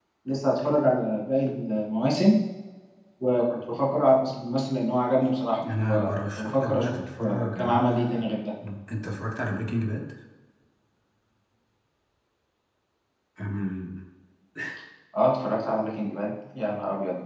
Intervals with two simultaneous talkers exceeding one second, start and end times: 5.7-8.2

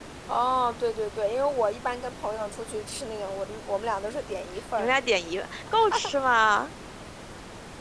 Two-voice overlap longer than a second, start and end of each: none

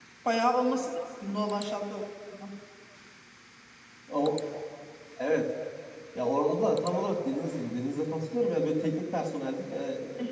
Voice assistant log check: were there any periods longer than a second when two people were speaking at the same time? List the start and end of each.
none

